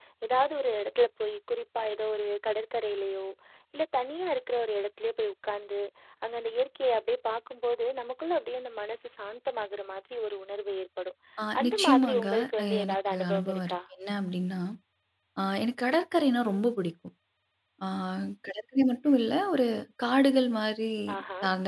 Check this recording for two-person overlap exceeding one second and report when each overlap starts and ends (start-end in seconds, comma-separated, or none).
11.6-13.8